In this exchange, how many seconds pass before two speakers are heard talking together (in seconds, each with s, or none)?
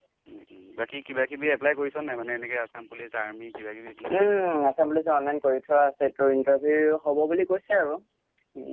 none